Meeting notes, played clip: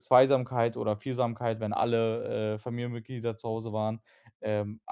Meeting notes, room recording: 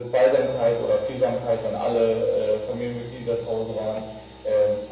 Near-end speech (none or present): none